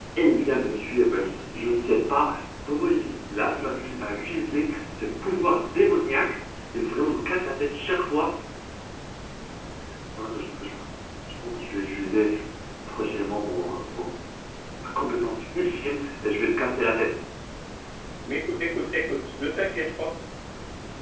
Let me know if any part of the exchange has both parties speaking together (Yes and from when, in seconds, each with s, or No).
No